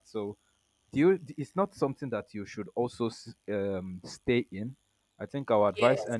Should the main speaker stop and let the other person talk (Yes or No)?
No